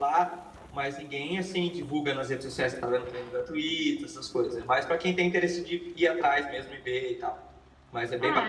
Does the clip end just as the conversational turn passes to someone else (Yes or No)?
Yes